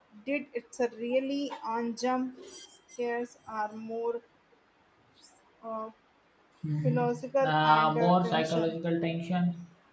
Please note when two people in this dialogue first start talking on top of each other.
6.8 s

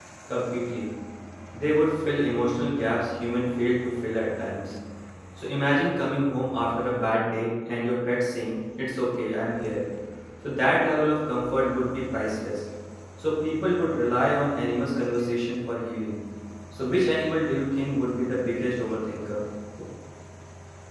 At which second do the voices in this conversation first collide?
none

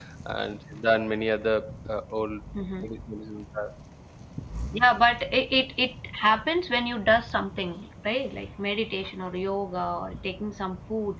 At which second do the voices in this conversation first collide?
none

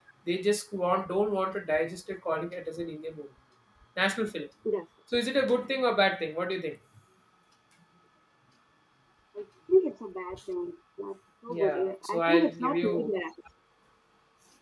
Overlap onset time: 11.5 s

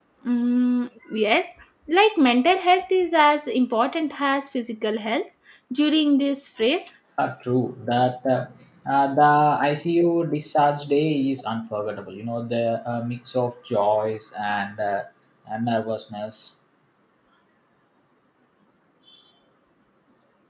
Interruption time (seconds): none

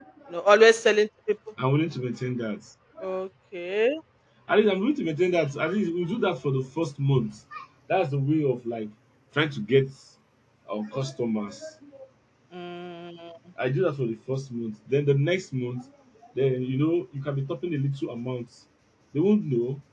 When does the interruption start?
none

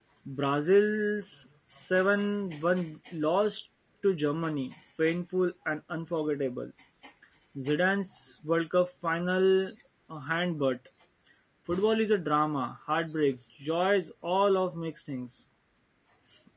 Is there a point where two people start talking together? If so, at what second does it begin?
none

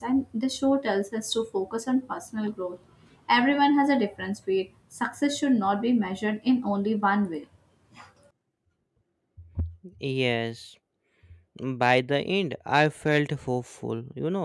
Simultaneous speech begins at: none

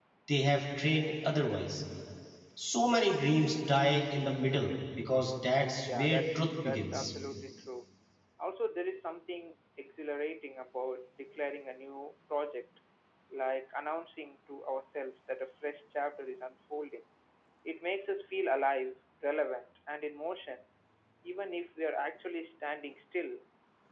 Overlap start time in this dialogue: 5.9 s

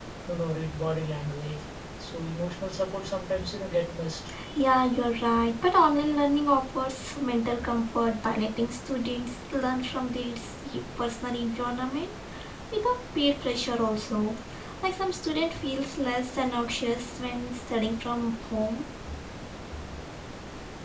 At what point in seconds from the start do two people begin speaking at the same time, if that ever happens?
none

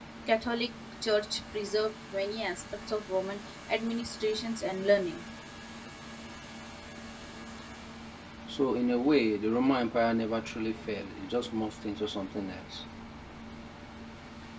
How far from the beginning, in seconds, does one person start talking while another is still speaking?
none

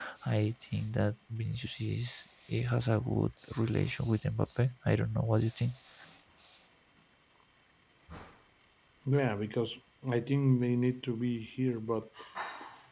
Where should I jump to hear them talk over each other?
none

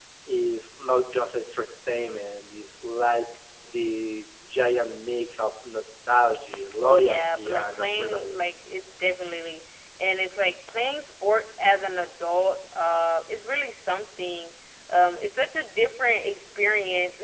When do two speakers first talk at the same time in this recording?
6.8 s

